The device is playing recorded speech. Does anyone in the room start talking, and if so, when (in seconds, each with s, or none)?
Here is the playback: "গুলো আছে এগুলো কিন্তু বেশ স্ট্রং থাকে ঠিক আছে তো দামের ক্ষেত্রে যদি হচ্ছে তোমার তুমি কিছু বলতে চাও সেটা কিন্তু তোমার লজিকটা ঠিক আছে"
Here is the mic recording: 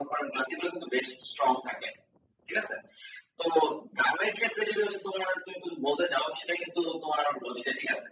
none